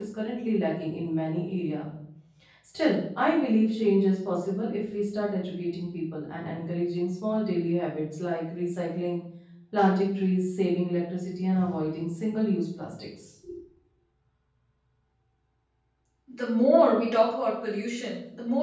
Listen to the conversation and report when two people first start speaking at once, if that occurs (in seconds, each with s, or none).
none